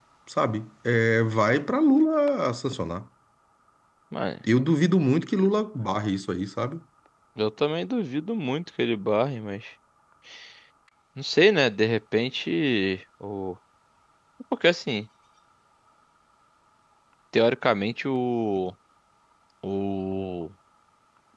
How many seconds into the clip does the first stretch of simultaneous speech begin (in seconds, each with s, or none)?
none